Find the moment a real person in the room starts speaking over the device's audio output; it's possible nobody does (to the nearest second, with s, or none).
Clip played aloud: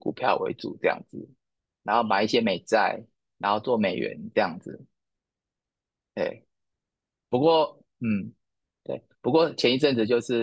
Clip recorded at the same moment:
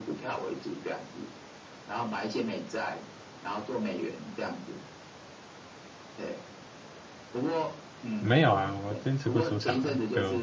8 s